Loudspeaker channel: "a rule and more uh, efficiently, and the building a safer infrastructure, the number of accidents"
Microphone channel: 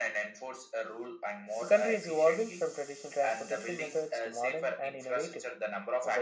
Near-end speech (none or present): present